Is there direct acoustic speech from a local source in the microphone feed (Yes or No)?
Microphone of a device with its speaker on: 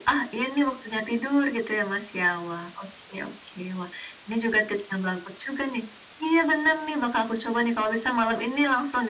No